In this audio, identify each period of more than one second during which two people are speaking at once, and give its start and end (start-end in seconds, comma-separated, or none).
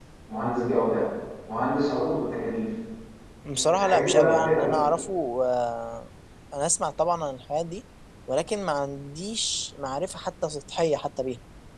3.5-4.8